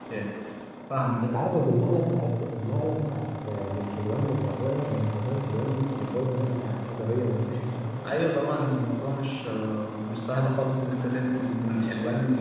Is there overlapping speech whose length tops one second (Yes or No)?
No